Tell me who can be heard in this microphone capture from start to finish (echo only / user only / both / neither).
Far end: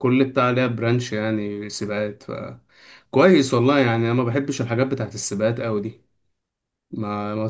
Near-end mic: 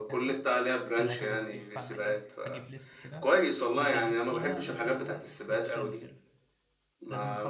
both